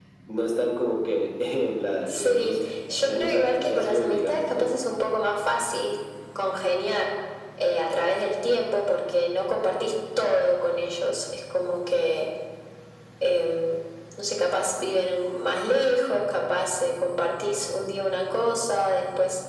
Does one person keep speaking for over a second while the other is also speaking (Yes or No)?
Yes